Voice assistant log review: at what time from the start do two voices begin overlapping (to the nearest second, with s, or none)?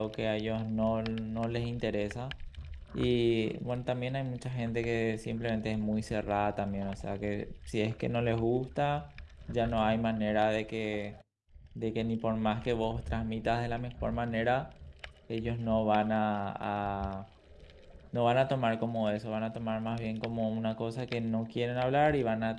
none